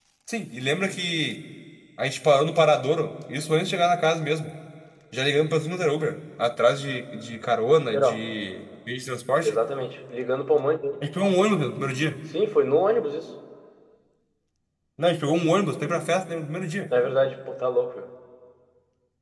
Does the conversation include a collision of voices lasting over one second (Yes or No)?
No